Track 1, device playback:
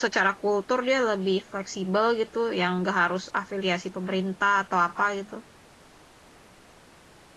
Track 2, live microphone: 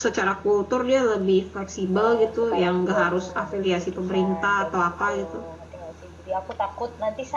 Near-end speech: present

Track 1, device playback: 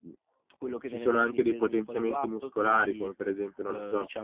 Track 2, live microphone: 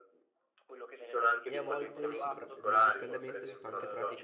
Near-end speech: present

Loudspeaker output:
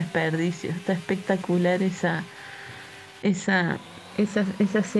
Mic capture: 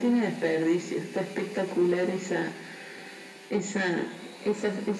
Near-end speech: none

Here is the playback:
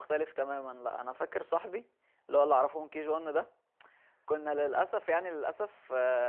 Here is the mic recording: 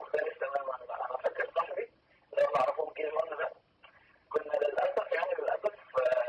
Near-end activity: none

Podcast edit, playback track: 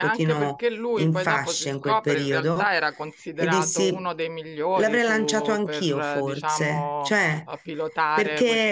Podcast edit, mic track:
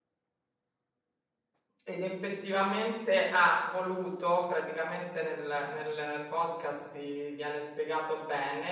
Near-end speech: present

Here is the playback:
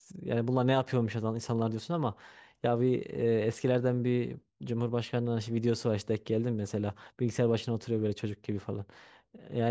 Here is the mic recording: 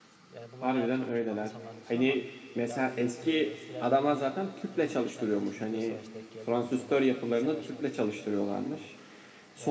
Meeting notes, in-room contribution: present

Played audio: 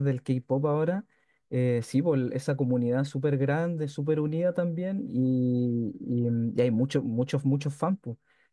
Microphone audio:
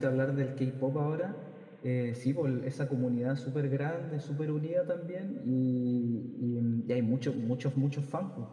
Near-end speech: none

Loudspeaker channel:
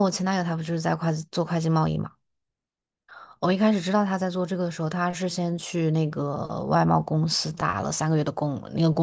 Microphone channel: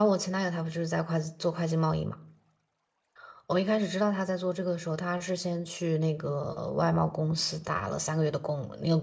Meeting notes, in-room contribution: none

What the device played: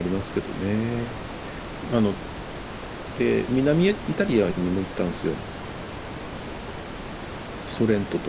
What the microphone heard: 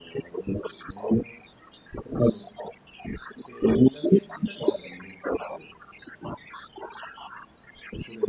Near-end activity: none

